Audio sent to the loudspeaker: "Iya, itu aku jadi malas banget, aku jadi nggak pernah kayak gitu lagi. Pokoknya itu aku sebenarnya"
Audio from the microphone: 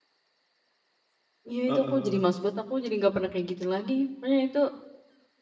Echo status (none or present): present